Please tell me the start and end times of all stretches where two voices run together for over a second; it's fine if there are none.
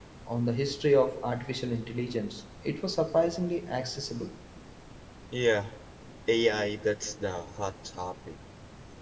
none

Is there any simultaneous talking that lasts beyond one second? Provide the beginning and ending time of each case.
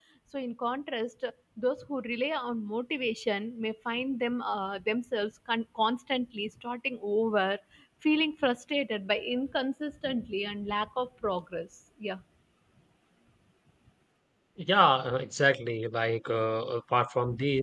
none

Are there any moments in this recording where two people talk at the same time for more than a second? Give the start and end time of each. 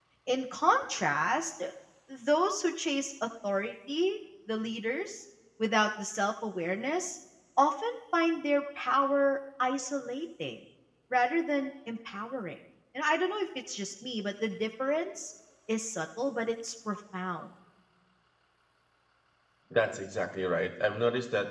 none

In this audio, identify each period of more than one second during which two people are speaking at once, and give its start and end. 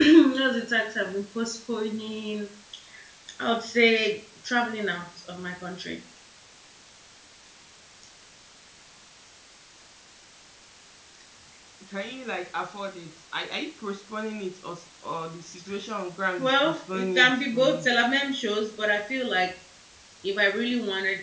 16.4-17.9

